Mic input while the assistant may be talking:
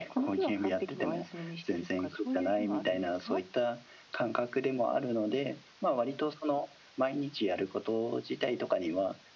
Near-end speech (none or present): none